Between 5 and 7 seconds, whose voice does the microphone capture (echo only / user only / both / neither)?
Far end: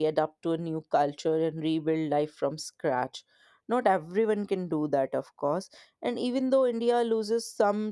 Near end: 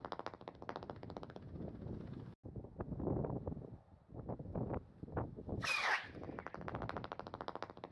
neither